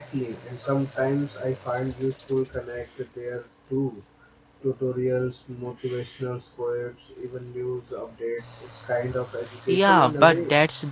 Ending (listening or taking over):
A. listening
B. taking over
B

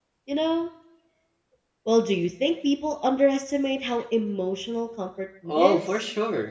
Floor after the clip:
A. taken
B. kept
A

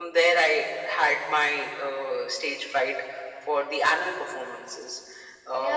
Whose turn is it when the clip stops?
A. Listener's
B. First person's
A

